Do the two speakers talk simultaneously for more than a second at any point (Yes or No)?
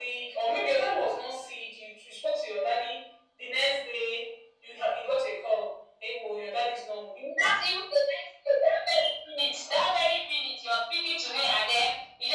No